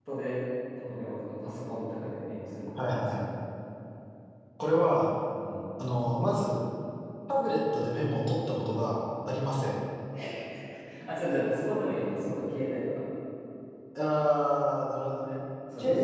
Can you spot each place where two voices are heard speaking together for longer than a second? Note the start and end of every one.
none

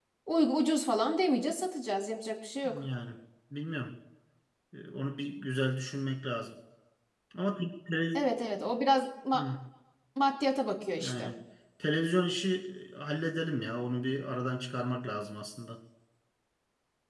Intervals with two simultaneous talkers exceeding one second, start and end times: none

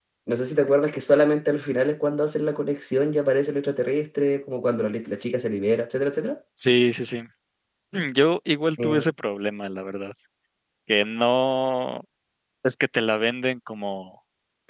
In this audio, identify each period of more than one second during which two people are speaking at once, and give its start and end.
none

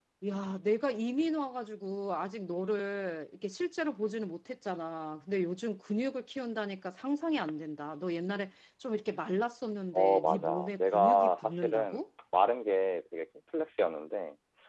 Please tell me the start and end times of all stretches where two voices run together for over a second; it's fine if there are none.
9.9-12.0

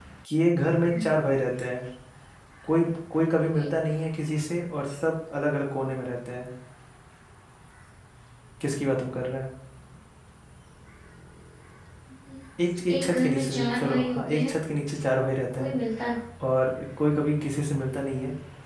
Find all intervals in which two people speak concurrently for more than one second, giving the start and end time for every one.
12.9-14.5

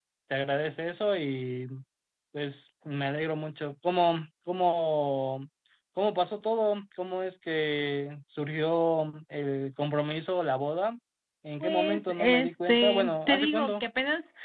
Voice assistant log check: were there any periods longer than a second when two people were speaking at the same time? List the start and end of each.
11.6-13.8

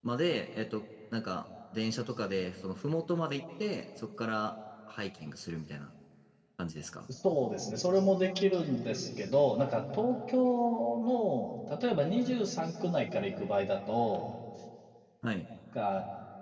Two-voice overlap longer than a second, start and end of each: none

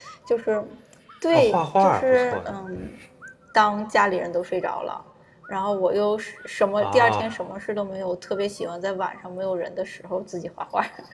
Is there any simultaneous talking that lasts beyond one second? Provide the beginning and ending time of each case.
1.3-2.5

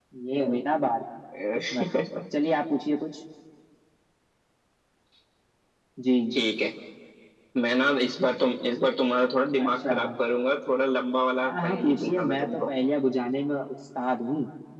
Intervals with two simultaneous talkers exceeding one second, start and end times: 11.4-12.7

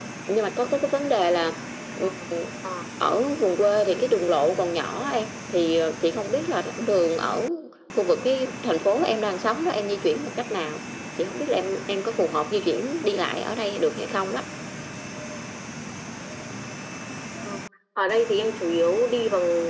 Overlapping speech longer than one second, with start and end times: none

